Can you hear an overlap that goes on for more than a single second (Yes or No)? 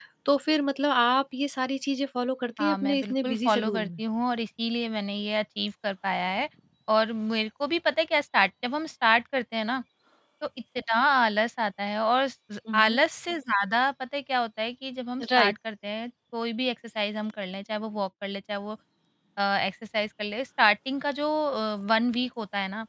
Yes